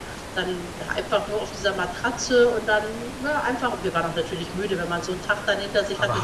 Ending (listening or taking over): taking over